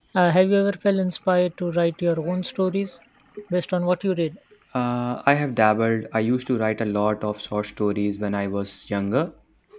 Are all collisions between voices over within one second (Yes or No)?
Yes